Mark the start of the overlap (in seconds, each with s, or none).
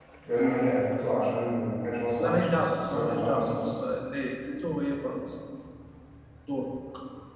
2.2 s